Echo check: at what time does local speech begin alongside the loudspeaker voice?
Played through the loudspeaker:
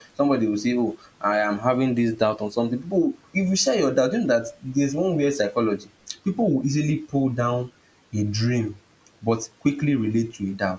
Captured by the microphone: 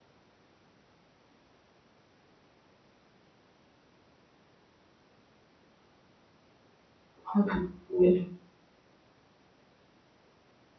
7.2 s

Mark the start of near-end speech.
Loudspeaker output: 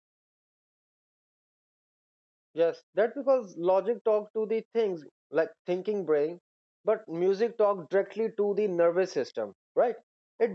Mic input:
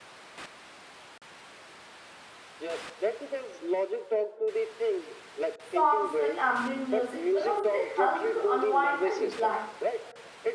5.7 s

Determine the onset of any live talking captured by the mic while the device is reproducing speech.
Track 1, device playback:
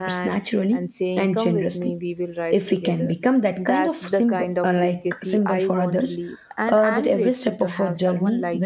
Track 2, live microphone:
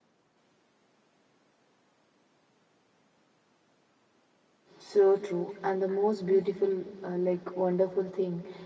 4.8 s

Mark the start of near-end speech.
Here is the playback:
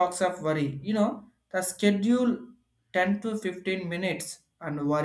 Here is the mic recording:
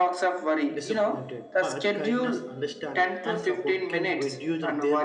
0.7 s

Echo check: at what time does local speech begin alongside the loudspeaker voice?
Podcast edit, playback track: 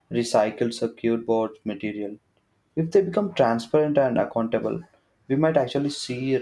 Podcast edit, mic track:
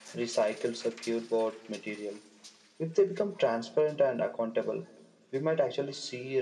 none

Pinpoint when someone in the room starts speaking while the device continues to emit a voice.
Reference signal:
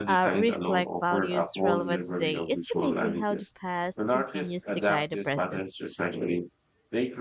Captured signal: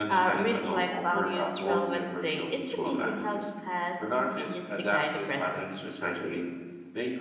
none

